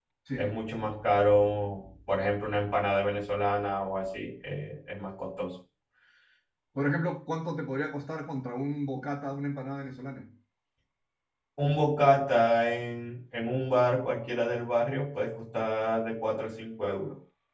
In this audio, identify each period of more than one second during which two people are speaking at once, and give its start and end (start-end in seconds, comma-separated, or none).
none